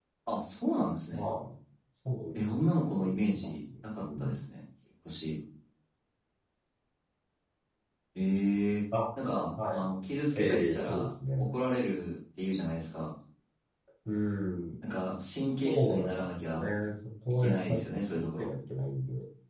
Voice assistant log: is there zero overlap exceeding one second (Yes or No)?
No